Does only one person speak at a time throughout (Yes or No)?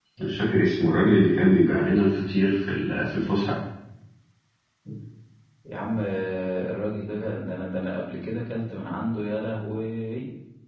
Yes